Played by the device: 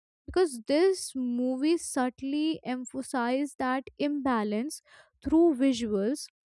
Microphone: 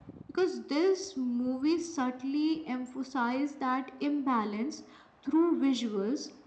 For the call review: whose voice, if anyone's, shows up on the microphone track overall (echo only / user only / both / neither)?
echo only